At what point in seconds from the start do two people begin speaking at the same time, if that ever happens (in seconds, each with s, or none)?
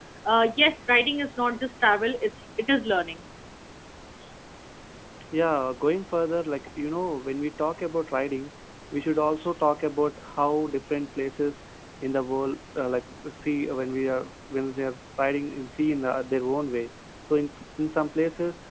none